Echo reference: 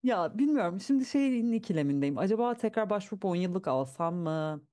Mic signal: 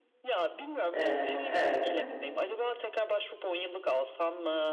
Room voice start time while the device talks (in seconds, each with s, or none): 0.9 s